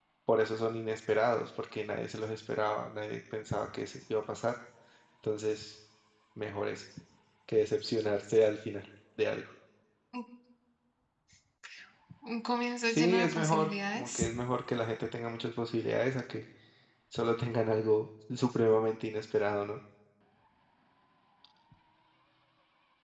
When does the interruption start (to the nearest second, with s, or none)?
13 s